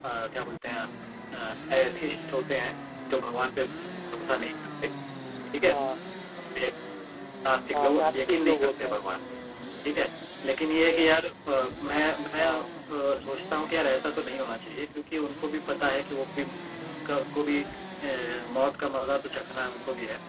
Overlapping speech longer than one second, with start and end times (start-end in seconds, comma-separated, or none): 7.7-9.0